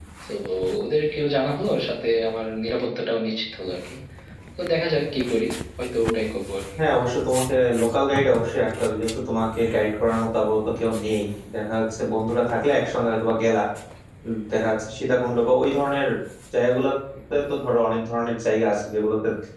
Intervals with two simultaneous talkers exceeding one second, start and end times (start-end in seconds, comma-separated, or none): none